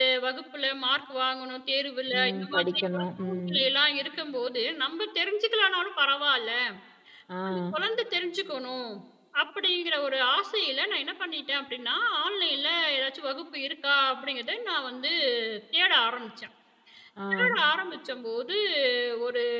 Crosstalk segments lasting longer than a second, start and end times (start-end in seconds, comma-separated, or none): 2.1-3.6